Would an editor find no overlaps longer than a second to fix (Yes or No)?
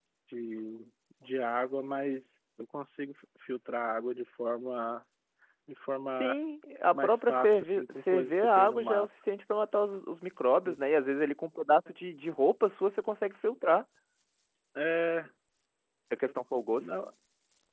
No